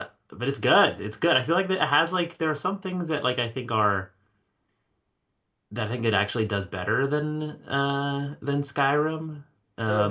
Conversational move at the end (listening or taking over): taking over